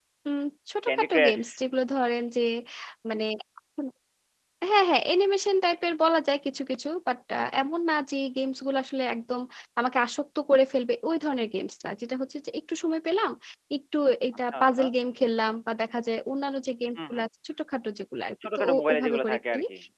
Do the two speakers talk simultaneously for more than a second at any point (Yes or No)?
Yes